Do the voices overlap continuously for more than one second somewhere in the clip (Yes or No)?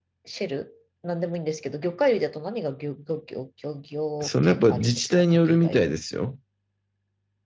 Yes